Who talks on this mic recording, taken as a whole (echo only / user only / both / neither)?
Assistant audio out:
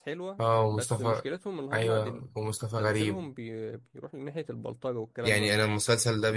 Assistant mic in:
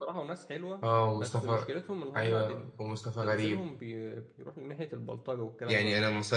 echo only